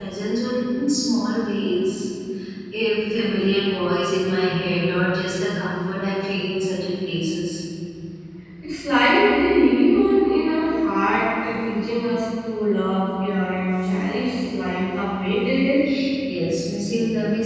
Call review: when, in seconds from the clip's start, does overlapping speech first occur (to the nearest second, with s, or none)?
none